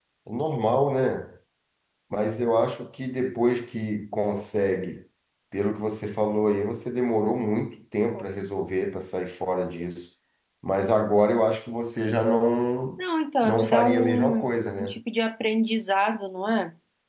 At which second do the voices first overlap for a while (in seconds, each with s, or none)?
13.4 s